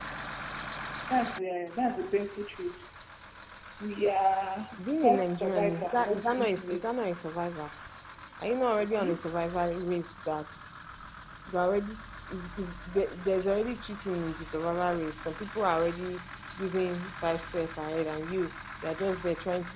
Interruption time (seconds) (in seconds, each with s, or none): 5.0 s